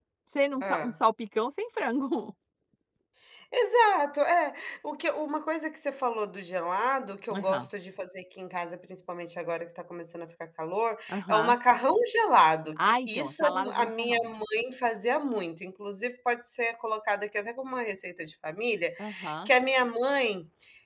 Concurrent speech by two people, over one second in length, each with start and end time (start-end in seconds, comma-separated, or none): 12.8-14.2